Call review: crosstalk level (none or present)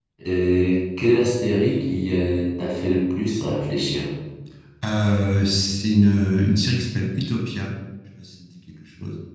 none